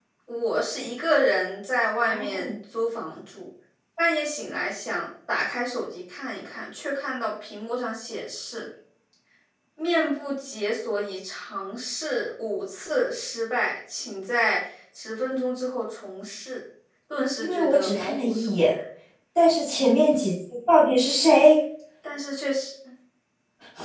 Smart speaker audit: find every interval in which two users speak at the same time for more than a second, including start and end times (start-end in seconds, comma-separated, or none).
17.4-18.6